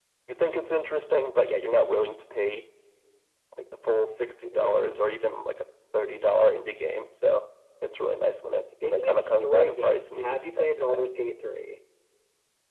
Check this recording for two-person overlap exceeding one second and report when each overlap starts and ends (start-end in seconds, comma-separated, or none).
8.8-11.1